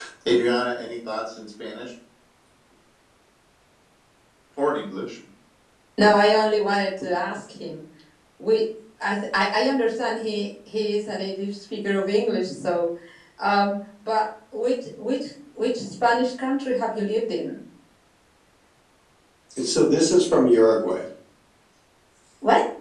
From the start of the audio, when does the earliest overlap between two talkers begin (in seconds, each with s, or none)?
none